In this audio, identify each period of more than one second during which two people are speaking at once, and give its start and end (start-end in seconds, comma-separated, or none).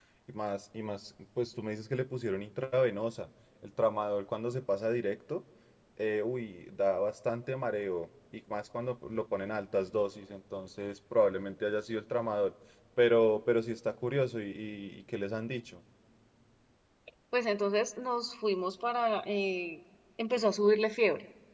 none